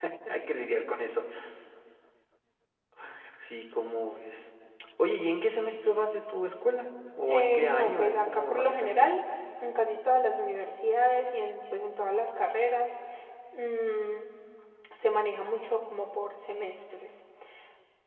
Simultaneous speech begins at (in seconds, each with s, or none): 7.3 s